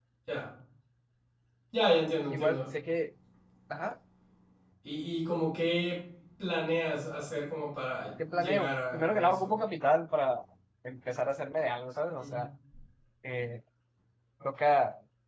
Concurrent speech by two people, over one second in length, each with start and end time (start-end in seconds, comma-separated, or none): 8.3-9.6